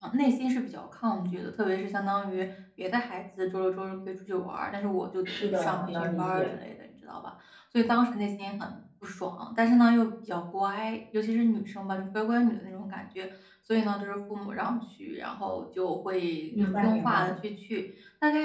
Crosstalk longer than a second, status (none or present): present